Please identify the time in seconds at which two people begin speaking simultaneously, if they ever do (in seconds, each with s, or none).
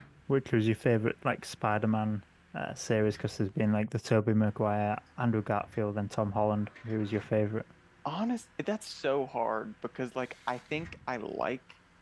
none